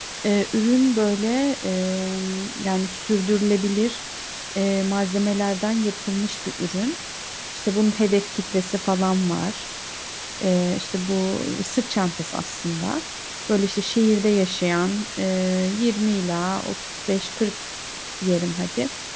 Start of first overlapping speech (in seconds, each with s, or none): none